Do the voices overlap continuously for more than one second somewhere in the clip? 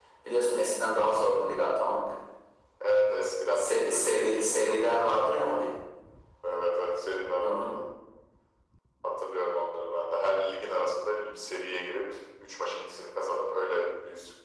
Yes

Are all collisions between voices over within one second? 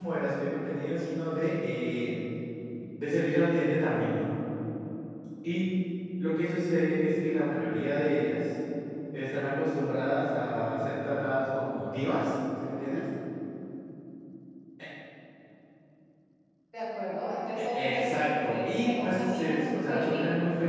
No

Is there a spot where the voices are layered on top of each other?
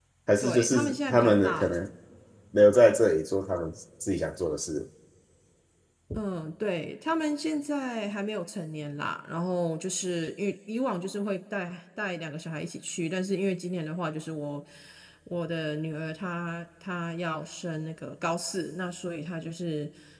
Yes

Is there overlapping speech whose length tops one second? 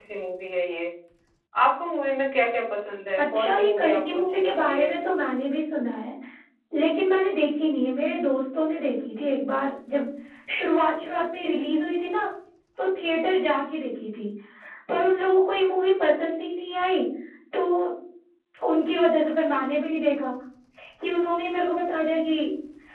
Yes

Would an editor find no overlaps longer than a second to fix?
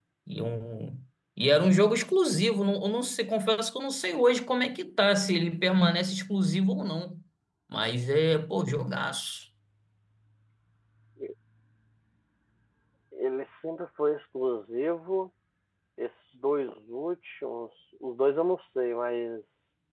Yes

